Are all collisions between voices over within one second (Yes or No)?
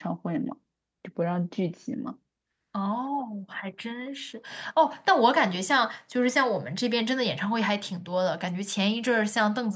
Yes